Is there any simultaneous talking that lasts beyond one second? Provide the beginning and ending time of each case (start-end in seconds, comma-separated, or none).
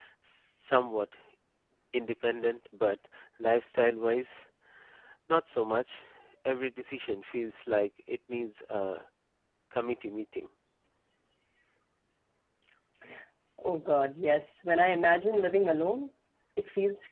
none